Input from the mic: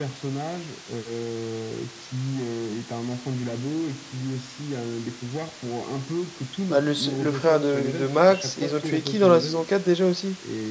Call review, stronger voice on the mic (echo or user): user